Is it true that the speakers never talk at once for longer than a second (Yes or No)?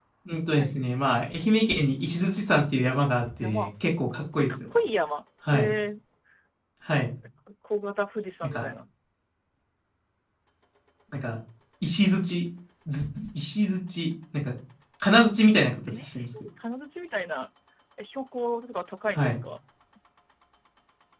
Yes